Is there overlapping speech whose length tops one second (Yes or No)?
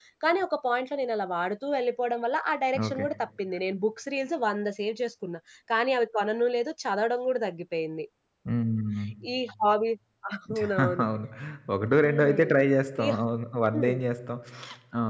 No